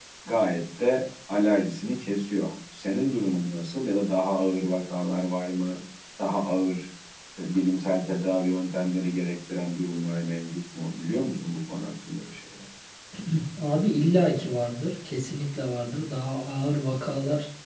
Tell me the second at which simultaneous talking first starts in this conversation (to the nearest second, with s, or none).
none